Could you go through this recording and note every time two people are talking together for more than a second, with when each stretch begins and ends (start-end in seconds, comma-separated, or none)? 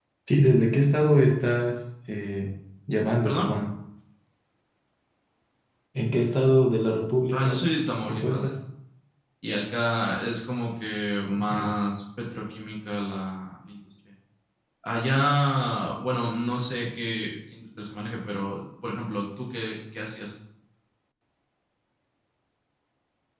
none